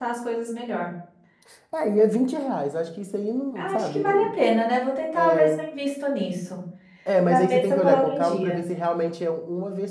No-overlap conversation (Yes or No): No